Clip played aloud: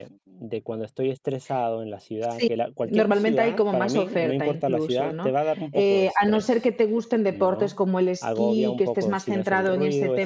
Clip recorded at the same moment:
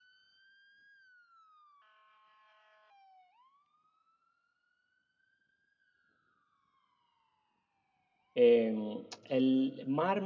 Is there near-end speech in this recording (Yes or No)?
Yes